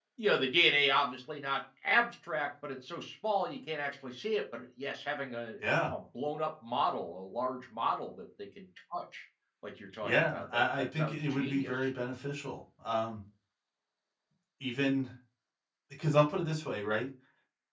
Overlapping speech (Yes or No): Yes